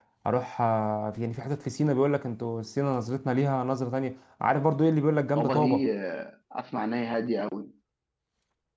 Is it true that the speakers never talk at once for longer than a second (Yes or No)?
Yes